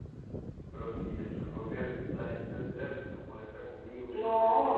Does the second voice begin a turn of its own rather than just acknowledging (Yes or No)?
Yes